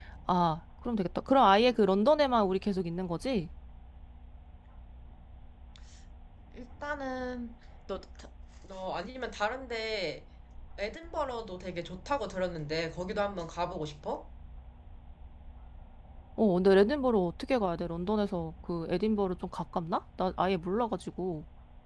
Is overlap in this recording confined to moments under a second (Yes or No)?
Yes